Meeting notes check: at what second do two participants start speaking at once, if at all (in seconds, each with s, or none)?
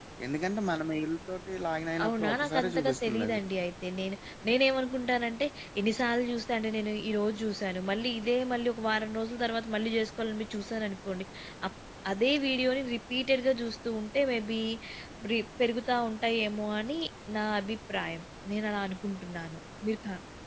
2.0 s